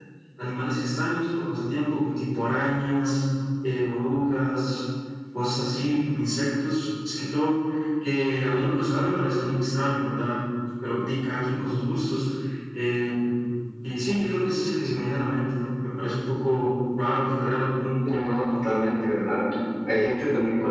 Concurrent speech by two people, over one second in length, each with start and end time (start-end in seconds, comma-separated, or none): none